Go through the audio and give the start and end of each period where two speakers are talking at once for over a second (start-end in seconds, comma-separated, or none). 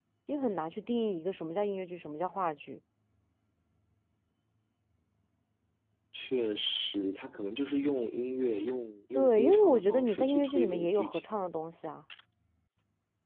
9.2-11.4